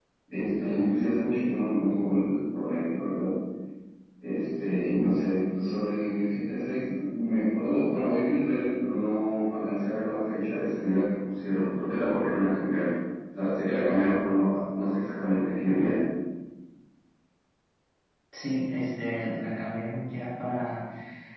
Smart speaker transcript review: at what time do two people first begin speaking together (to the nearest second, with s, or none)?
none